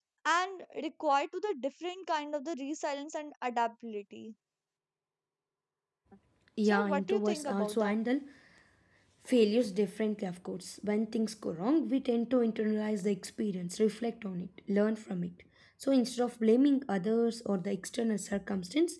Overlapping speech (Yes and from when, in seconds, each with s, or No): Yes, from 6.6 s